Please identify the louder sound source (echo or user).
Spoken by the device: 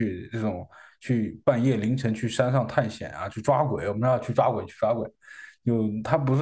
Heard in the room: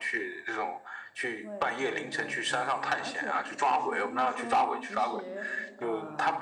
echo